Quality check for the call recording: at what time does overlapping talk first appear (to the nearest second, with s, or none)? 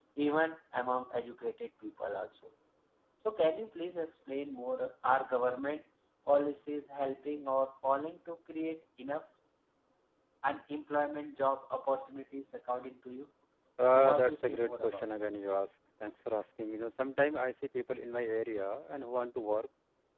14 s